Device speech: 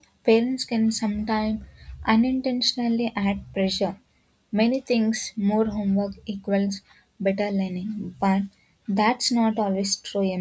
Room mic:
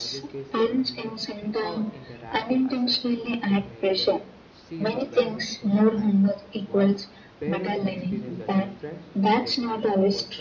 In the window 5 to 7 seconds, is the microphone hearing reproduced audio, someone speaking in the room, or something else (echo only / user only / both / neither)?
both